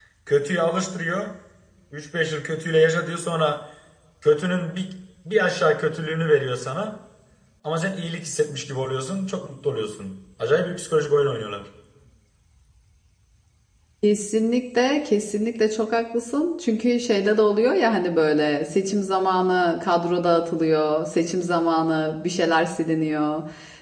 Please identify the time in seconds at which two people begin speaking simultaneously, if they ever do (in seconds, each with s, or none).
none